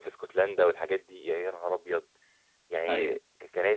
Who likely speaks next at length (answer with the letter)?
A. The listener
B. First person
B